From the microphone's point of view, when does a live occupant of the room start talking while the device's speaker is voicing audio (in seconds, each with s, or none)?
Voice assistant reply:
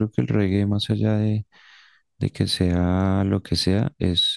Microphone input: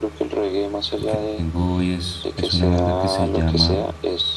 1.1 s